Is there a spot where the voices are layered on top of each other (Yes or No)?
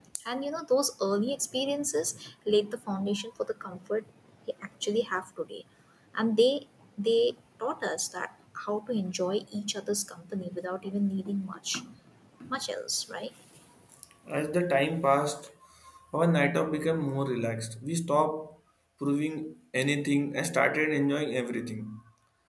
No